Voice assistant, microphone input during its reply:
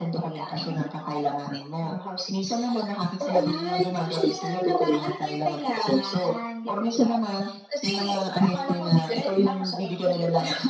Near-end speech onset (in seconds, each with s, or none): none